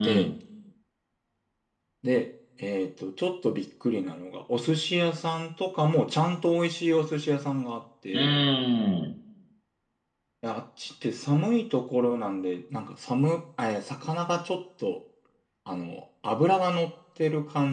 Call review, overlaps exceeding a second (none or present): none